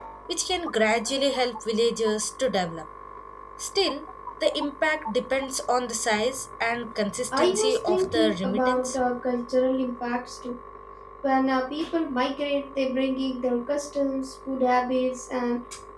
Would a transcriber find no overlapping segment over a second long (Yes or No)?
No